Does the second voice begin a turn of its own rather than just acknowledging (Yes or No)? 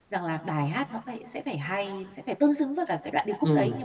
Yes